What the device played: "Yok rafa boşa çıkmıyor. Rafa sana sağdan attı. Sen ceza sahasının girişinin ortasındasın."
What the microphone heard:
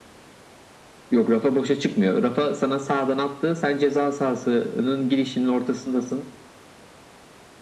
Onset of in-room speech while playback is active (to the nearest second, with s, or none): none